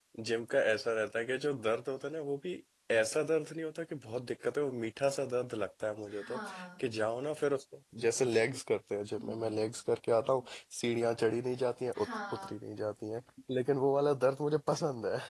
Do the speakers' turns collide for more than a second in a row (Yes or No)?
No